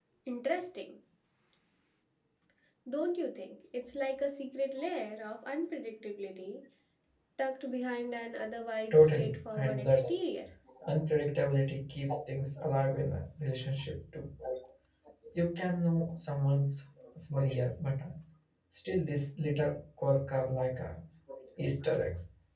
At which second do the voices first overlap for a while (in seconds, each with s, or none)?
8.9 s